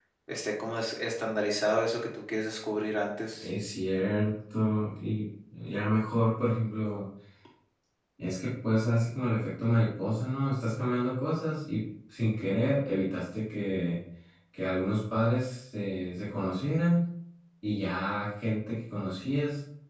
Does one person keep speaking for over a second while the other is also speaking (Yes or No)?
No